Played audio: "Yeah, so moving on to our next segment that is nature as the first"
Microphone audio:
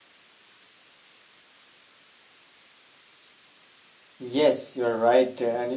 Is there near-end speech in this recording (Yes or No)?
Yes